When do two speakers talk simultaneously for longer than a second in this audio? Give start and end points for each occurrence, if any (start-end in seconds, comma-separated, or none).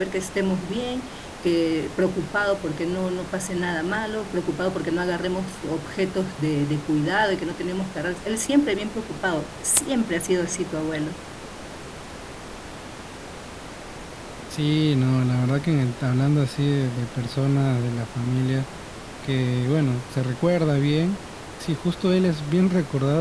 none